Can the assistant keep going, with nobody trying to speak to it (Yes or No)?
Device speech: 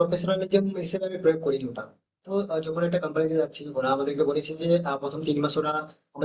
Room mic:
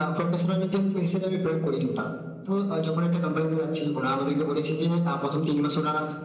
Yes